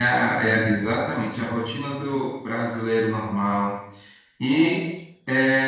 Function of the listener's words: listening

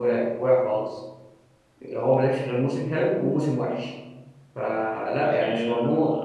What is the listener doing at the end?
taking over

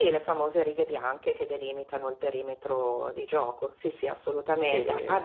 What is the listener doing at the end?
listening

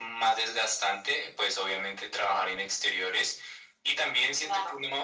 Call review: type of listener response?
listening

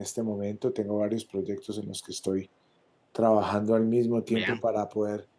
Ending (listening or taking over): listening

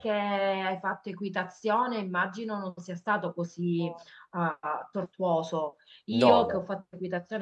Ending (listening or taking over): listening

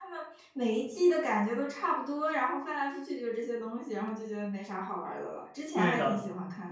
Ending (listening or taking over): taking over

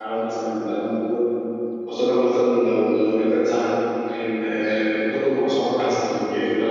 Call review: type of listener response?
listening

